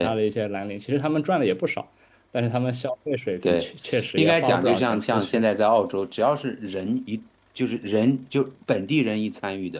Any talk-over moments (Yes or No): Yes